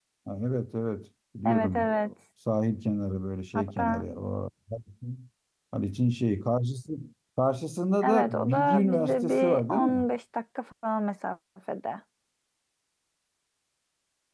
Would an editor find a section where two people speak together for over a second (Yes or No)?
Yes